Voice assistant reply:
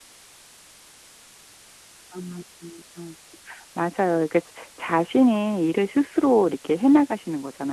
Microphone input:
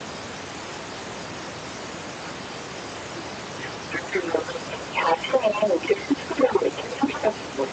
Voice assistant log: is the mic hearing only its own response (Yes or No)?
Yes